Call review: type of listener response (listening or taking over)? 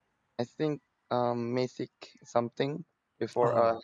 listening